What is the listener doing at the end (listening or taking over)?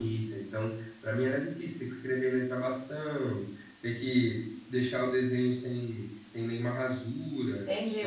taking over